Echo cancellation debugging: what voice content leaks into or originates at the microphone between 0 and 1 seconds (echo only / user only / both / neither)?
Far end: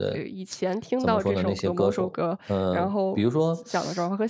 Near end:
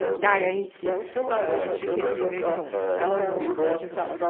both